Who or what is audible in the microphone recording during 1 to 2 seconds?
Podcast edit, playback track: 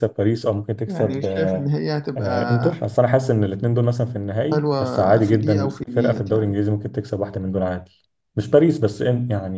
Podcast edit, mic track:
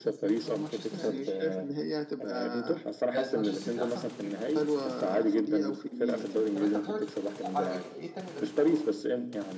both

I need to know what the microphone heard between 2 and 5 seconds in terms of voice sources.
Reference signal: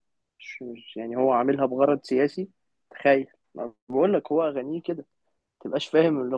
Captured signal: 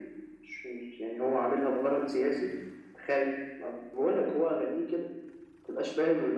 echo only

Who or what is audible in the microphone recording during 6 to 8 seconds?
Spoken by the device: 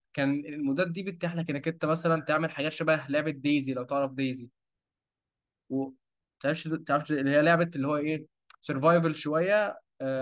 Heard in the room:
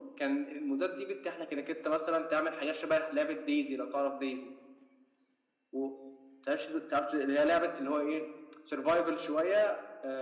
echo only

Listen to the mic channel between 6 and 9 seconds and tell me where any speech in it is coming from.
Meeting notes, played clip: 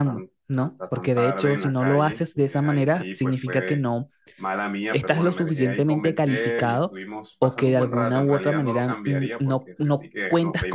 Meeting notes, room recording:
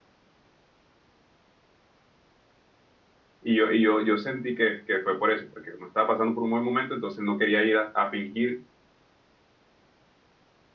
user only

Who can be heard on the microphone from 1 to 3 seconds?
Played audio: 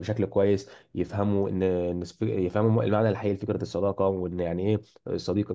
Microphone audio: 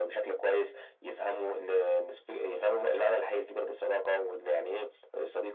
echo only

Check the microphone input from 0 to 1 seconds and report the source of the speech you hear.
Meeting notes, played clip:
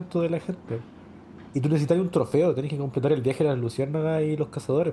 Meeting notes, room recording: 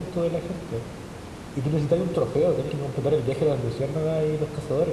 echo only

